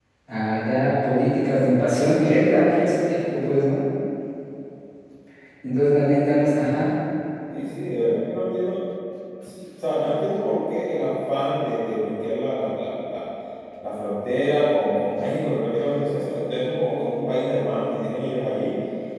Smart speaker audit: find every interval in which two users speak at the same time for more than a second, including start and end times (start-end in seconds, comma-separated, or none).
none